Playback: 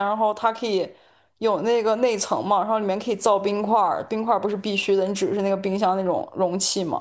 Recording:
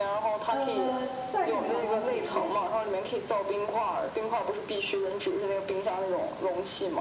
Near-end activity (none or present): present